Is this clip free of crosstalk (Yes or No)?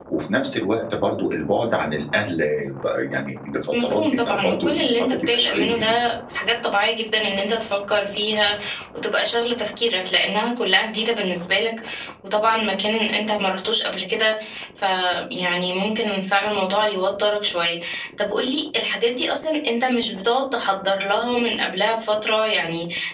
No